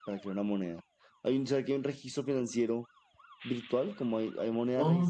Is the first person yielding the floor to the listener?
Yes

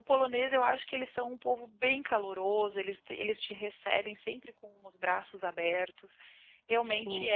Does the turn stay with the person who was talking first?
Yes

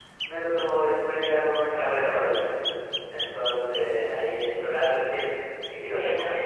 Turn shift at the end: No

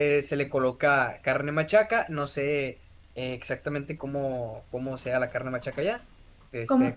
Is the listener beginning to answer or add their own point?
Yes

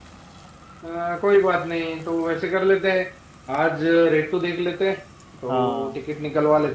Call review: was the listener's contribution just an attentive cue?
Yes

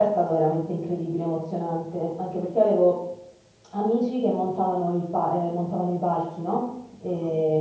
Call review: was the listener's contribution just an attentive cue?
Yes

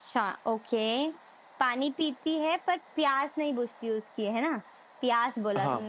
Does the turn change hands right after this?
No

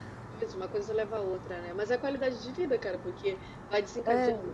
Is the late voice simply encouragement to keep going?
Yes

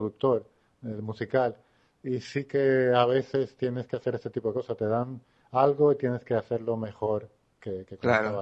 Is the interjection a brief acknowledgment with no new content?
No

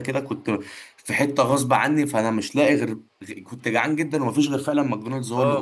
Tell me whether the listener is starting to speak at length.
Yes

